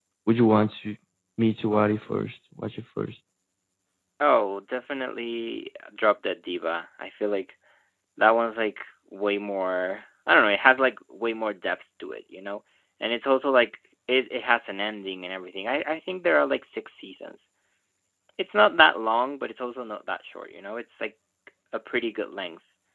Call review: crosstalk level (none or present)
none